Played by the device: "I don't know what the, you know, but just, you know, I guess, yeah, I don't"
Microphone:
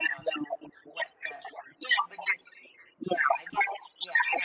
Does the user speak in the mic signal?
No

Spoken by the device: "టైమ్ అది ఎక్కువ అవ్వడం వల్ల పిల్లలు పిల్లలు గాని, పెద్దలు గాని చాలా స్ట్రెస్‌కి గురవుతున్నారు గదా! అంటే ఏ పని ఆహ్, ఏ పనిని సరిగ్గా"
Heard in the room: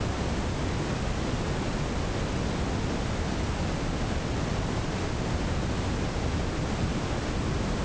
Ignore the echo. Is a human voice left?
No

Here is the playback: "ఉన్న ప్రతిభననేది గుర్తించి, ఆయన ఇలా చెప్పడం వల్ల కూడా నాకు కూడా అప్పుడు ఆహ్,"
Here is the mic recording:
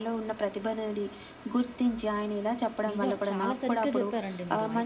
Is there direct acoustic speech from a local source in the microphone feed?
Yes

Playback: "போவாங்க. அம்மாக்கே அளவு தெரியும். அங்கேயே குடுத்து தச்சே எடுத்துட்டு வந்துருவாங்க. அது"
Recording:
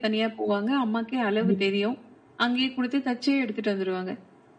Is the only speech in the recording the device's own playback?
No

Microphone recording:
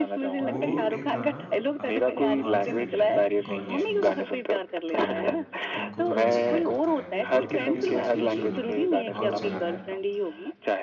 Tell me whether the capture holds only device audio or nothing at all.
No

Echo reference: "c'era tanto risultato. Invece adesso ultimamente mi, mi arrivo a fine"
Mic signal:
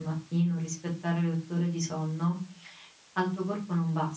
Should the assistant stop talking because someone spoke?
Yes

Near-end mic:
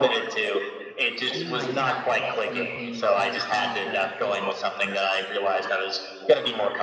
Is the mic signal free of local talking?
No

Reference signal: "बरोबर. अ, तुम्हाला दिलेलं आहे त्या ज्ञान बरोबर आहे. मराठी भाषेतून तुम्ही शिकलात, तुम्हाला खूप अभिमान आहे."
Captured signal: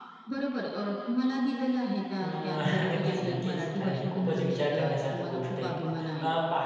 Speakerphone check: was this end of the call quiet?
No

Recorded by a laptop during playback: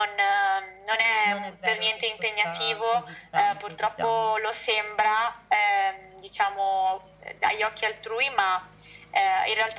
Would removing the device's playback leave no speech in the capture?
No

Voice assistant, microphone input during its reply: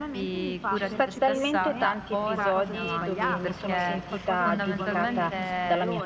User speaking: Yes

